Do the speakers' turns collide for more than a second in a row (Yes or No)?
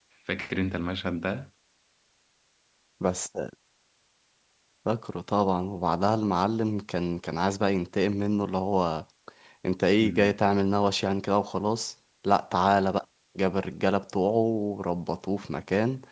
No